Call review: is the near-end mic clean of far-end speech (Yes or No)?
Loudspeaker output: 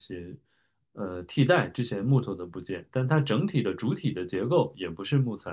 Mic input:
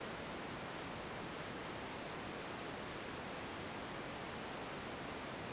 Yes